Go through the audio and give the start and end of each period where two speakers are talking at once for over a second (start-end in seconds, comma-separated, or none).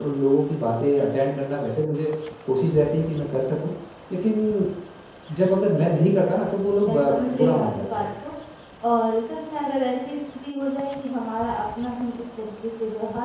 6.8-8.0